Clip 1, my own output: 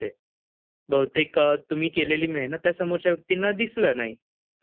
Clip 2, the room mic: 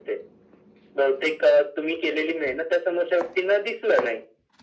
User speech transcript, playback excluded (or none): none